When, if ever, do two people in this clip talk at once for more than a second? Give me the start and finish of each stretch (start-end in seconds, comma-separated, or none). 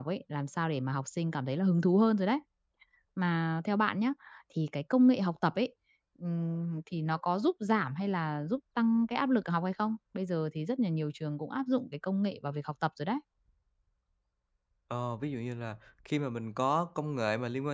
none